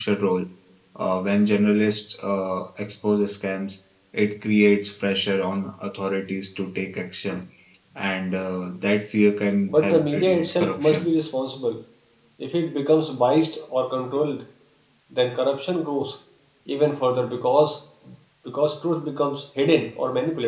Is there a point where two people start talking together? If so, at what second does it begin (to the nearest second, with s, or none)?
10 s